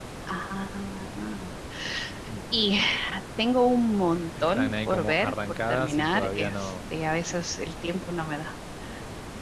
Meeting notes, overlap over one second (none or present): present